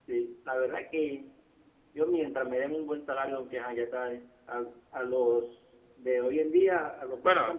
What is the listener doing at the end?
listening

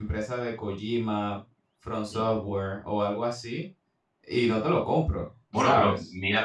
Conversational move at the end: taking over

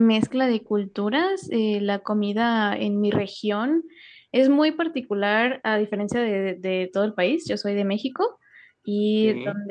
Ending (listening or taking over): listening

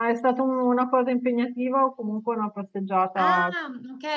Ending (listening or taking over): taking over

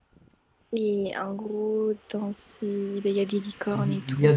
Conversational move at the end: taking over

